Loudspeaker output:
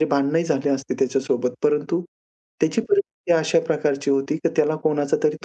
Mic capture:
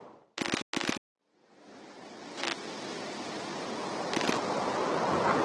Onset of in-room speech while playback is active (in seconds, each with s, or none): none